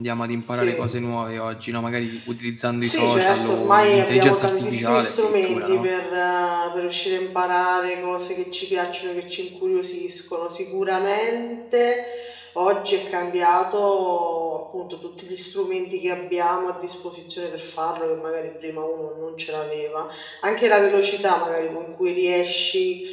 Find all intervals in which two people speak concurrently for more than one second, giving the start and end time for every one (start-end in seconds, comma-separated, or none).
2.8-5.9